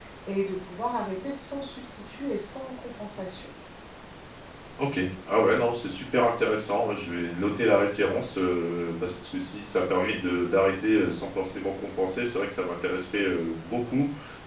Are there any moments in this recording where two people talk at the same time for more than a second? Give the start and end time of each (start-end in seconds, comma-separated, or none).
none